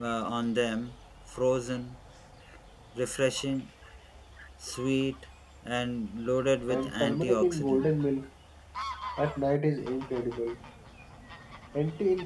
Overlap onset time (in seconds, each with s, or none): 6.7 s